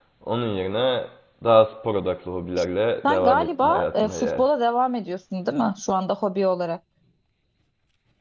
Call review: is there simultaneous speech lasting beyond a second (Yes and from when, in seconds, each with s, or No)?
Yes, from 3.0 s